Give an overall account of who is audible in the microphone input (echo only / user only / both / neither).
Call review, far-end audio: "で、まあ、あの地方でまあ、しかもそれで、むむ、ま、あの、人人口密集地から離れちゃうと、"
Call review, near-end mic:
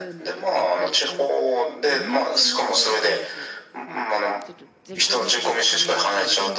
both